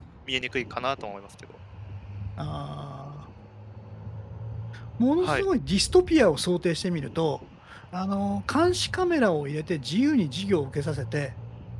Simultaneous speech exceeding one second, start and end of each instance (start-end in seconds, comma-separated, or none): none